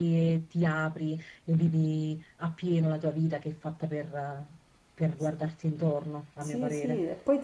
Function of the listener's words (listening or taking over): taking over